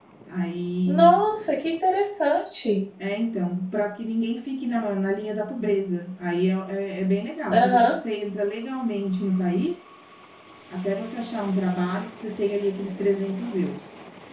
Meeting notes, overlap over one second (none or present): none